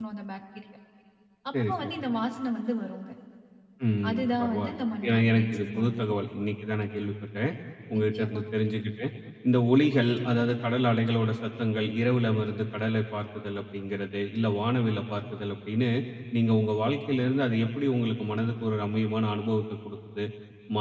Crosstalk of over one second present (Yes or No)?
Yes